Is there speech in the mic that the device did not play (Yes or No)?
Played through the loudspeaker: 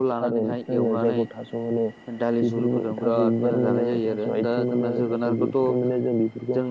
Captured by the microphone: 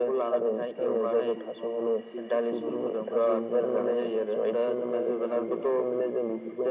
Yes